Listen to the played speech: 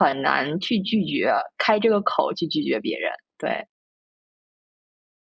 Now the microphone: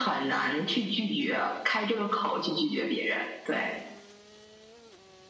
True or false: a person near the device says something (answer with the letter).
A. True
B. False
B